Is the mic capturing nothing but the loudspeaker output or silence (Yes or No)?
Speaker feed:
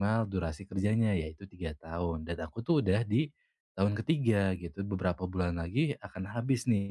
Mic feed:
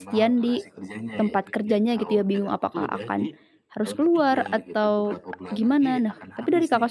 No